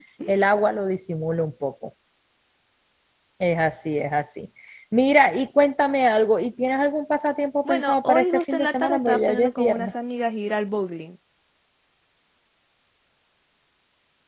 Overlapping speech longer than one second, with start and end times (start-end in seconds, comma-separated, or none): 7.7-9.9